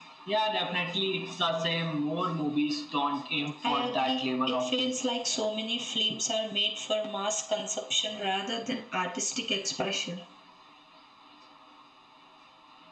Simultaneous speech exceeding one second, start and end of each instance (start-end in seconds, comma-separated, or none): 3.7-5.0